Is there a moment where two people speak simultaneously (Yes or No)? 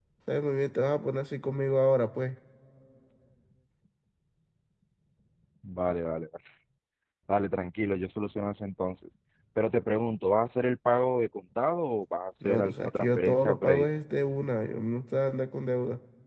Yes